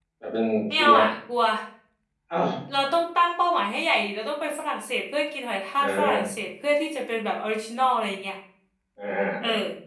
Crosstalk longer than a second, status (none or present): none